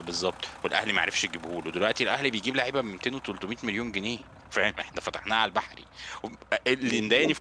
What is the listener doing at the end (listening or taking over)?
taking over